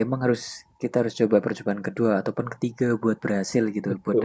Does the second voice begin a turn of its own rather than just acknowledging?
Yes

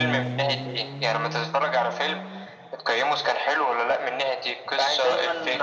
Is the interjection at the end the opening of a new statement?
Yes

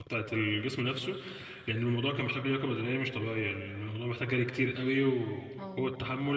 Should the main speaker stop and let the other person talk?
No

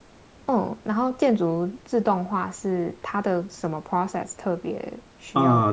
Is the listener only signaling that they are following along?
No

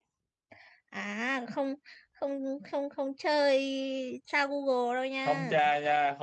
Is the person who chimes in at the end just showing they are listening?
No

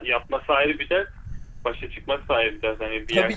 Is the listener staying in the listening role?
No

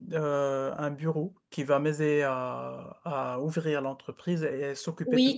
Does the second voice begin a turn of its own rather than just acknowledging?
Yes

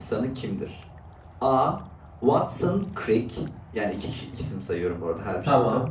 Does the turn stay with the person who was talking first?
Yes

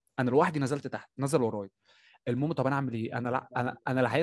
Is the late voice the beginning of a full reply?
No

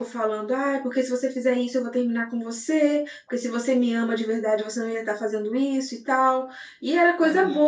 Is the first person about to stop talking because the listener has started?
No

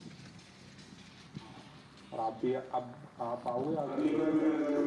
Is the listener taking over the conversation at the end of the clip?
Yes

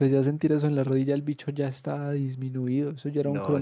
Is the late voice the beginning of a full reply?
Yes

